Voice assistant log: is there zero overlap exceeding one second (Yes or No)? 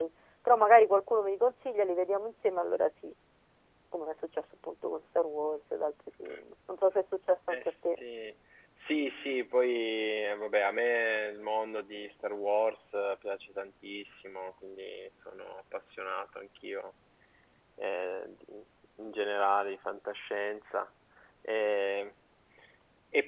Yes